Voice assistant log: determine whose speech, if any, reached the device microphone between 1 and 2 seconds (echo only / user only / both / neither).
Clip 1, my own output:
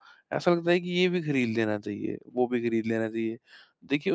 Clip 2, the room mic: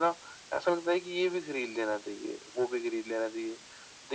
echo only